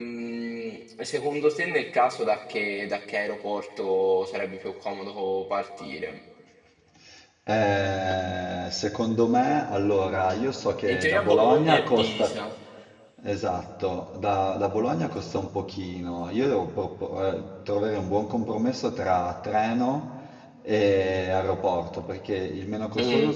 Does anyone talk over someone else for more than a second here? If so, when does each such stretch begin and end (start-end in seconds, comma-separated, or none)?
10.9-12.4